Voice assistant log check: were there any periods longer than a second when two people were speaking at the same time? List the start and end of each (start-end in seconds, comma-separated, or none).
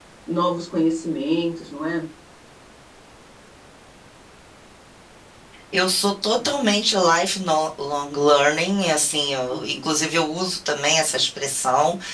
none